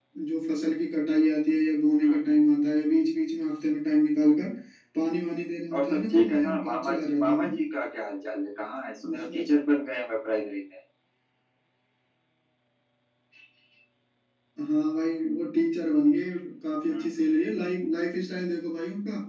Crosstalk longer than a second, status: present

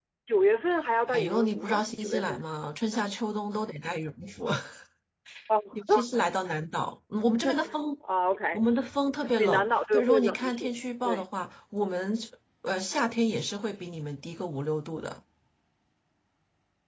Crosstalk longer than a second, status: present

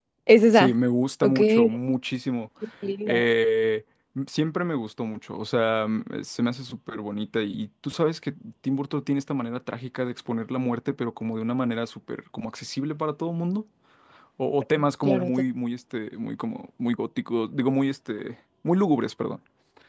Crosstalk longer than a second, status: none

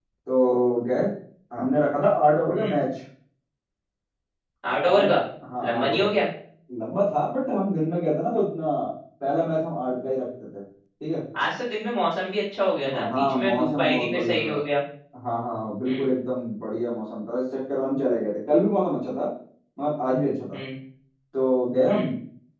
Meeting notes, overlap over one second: present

